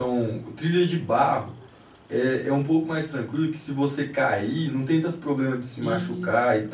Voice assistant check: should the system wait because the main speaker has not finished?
Yes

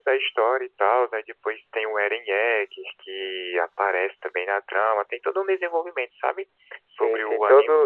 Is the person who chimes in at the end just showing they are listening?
No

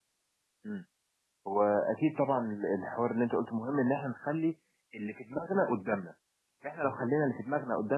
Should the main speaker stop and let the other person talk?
No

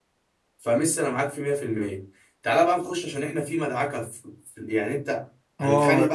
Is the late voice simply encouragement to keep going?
No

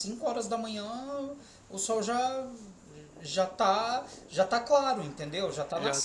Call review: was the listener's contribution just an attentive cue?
No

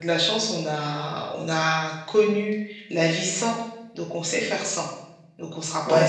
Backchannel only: No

